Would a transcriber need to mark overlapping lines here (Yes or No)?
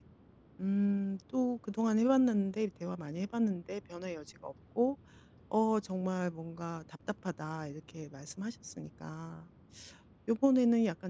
No